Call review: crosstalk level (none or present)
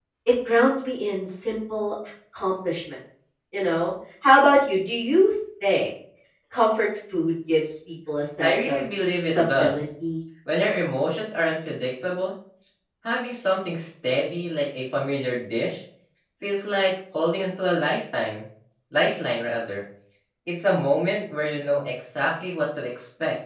present